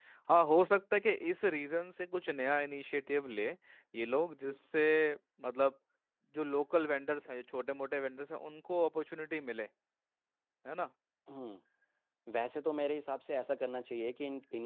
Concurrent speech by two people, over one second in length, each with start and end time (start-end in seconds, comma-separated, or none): none